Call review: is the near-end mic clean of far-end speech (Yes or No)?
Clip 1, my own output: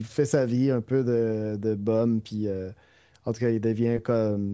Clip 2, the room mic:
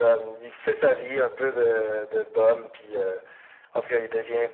No